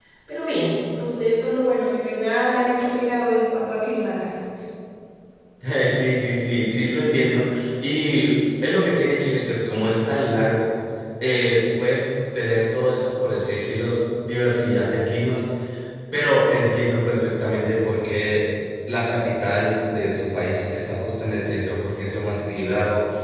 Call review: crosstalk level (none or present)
none